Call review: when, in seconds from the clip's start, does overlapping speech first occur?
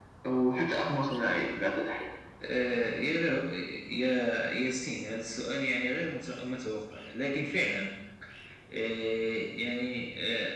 none

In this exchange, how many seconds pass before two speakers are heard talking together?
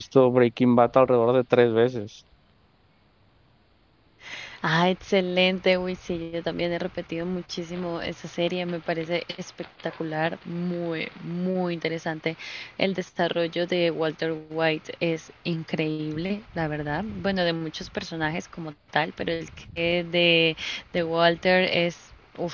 none

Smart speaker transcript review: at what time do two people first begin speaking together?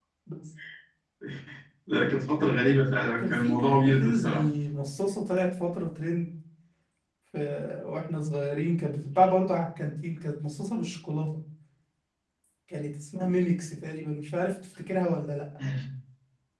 3.2 s

